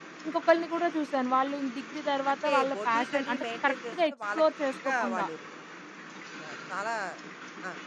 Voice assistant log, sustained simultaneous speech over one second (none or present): present